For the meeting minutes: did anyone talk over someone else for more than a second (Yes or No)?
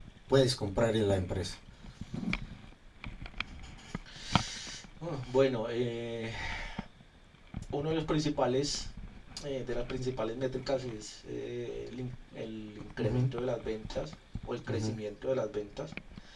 No